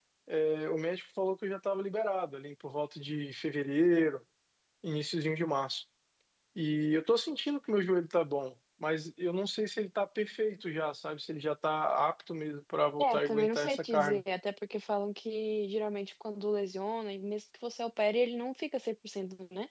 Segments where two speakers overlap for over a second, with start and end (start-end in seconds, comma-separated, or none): 13.0-14.2